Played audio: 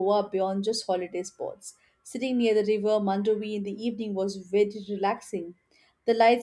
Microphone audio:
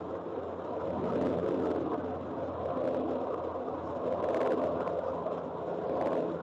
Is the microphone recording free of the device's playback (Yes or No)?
Yes